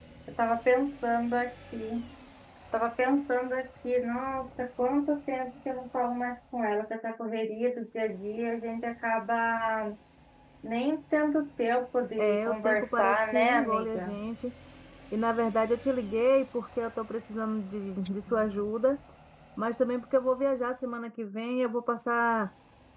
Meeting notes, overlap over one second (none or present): present